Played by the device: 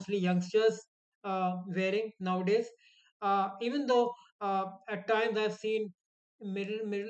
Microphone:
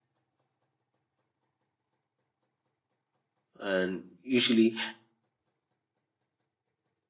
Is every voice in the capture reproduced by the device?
No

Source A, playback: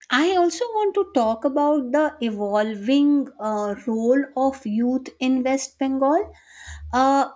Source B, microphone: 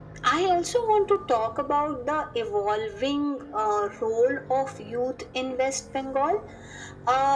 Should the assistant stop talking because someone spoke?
No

